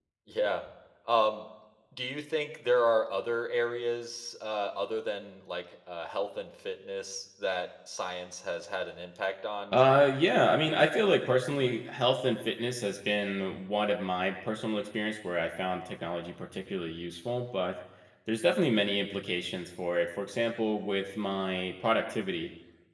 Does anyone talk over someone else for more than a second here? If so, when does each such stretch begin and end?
none

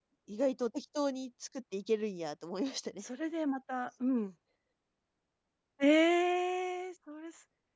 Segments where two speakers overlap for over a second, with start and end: none

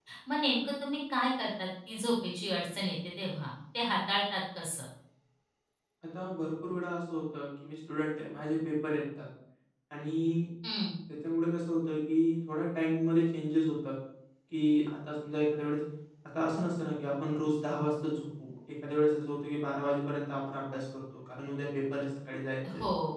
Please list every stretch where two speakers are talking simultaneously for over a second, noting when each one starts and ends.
none

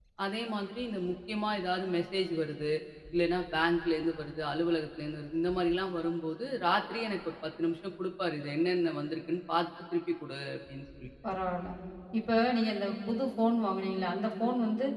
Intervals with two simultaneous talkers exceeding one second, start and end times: none

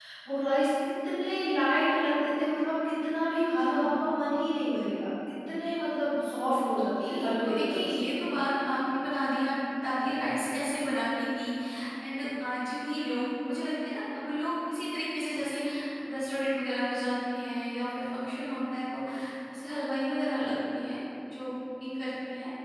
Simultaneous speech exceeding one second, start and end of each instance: 6.7-8.0

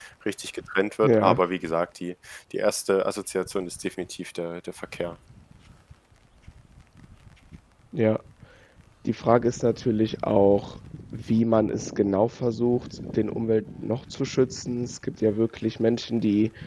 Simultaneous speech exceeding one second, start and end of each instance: none

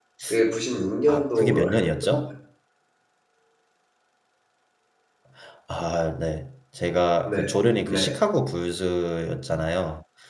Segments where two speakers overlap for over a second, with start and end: 1.1-2.3

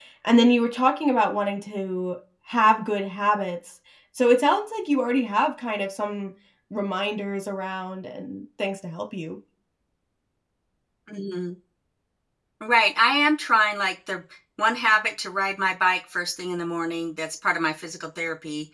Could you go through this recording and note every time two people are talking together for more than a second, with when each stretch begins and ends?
none

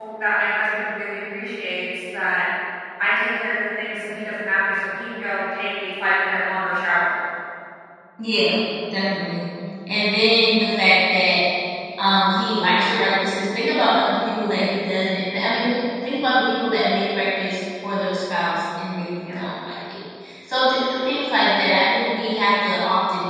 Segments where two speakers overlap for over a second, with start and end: none

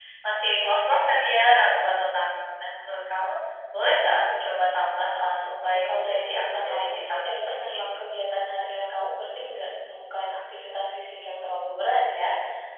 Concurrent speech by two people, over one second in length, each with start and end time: 5.7-8.1

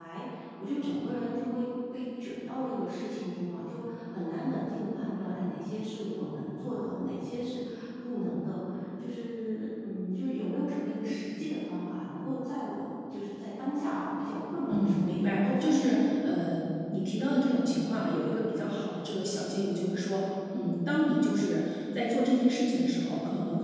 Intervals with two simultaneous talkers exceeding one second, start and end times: 14.7-16.3

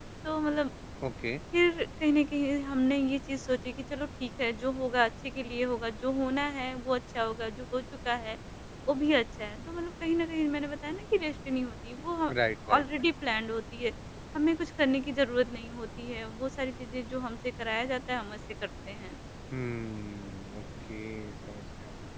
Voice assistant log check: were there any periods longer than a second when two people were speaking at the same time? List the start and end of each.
none

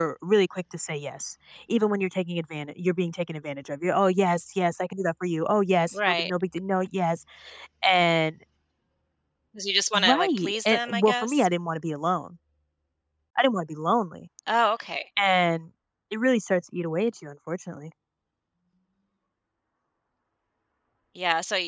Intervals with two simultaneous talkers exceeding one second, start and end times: 10.0-11.5

